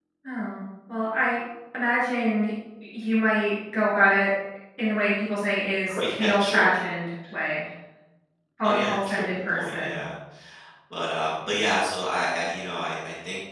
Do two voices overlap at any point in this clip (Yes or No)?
Yes